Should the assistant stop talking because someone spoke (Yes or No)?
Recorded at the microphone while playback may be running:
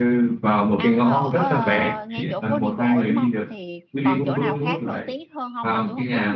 Yes